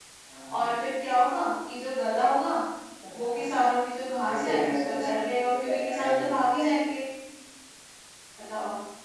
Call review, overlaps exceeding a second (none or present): present